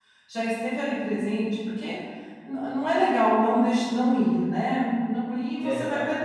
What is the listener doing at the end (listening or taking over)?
listening